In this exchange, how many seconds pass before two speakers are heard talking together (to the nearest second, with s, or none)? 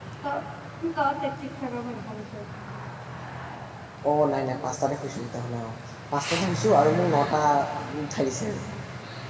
none